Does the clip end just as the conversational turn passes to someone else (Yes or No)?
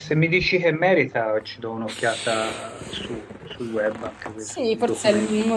Yes